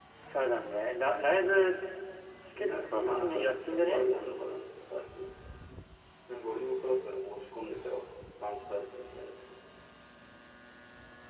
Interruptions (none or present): present